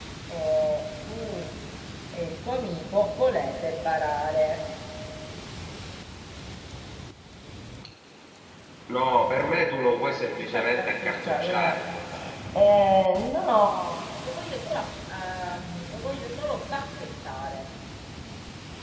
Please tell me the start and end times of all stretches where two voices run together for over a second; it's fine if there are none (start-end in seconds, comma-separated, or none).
10.5-11.8